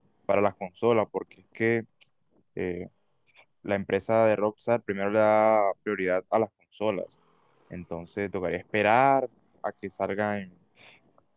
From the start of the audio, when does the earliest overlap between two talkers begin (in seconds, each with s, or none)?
none